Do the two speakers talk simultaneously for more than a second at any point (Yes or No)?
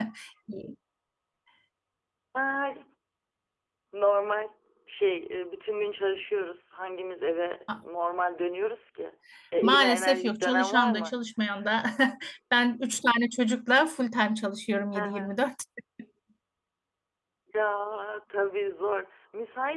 Yes